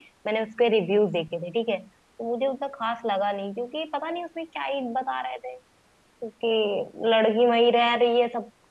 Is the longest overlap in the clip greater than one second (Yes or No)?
No